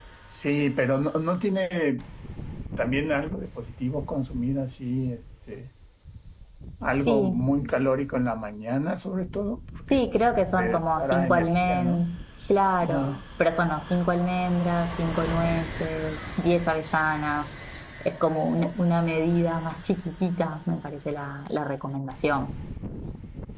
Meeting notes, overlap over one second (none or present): present